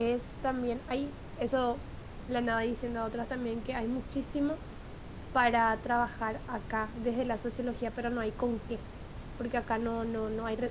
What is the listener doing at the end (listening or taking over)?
listening